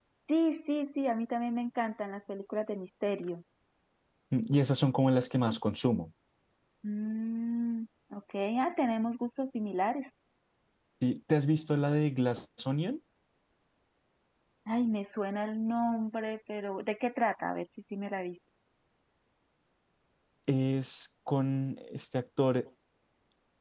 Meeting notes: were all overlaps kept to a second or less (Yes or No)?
Yes